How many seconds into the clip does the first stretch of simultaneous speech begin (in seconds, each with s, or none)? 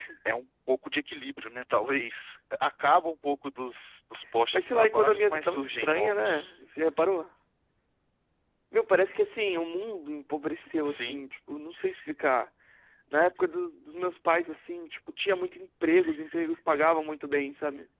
4.5 s